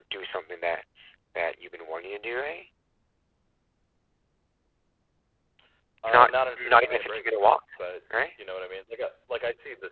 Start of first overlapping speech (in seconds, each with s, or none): 6.1 s